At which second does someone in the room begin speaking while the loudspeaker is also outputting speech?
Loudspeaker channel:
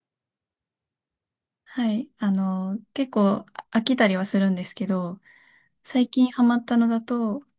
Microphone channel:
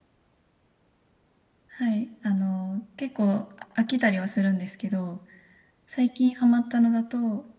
none

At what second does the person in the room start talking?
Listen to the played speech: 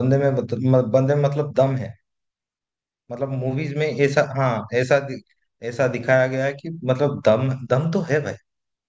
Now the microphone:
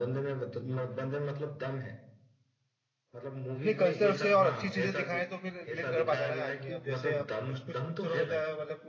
3.6 s

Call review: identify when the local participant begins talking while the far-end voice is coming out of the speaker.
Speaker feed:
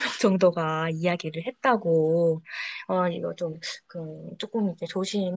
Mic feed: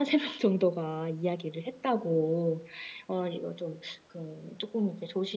none

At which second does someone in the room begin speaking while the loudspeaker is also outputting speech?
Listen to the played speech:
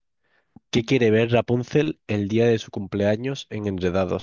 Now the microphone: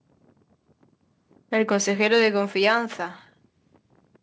1.5 s

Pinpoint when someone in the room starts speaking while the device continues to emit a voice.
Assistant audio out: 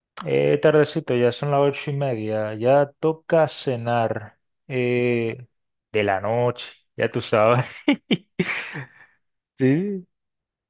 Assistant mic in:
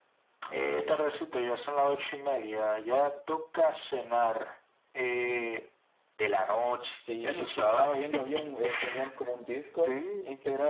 7.0 s

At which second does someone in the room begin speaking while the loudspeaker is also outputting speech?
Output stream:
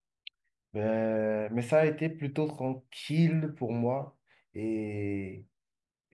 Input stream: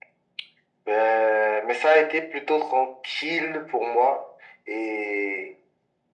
none

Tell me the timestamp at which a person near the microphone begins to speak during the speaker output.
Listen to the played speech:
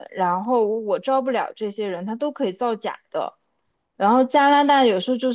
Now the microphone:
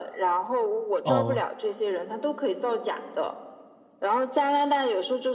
1.0 s

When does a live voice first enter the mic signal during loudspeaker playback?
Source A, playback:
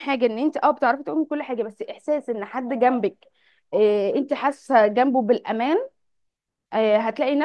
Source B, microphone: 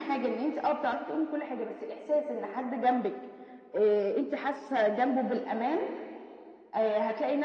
none

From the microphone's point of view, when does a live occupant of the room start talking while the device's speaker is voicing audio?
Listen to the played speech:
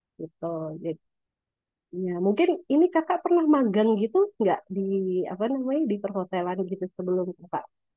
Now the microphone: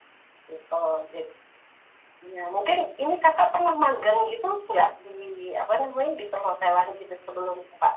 none

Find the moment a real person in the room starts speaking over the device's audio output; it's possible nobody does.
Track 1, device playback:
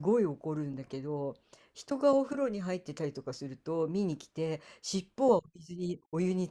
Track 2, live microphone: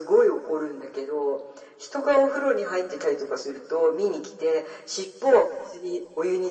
none

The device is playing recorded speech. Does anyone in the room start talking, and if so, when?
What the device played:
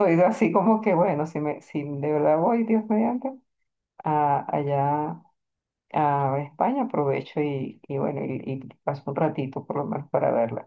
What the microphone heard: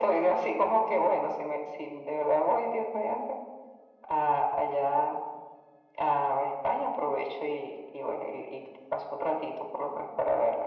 none

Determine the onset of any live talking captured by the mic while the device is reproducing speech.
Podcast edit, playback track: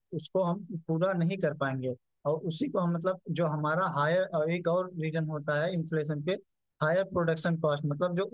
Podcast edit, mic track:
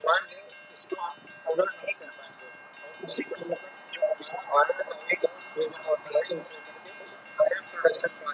none

